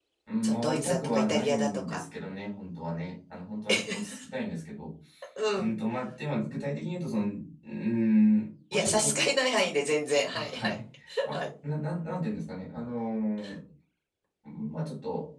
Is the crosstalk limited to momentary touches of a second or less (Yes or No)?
No